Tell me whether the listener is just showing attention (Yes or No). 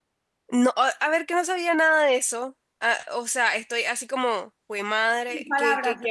No